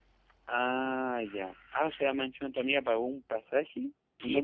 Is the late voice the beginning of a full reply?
Yes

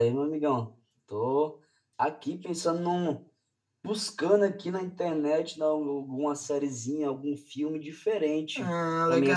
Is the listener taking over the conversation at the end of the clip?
No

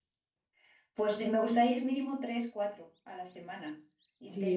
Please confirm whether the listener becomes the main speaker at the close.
Yes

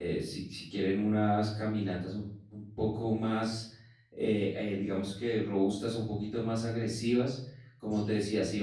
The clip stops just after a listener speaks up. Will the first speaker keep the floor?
Yes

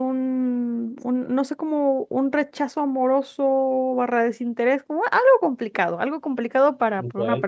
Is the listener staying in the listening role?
Yes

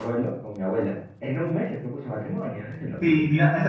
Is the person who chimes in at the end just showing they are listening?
No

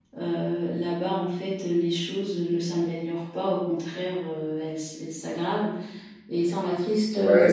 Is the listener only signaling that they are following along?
No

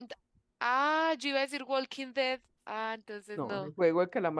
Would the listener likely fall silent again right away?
No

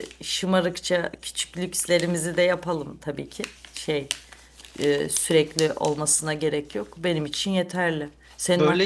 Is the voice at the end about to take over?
No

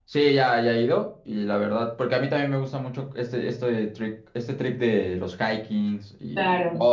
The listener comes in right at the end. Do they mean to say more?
No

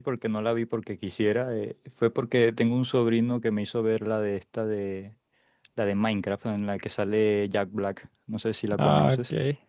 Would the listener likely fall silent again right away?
No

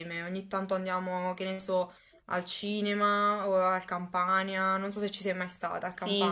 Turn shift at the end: Yes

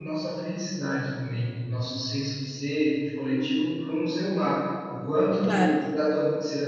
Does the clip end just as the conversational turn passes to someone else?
No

